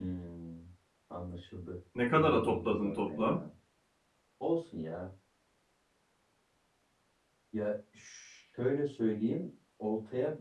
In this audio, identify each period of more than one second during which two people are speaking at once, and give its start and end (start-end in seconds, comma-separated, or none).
2.1-3.4